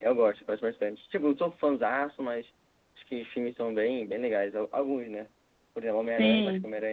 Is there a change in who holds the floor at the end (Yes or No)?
No